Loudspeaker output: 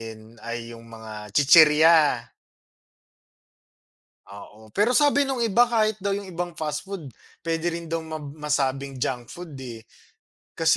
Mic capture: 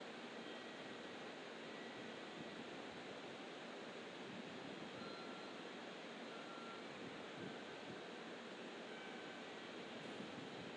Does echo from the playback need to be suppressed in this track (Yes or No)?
No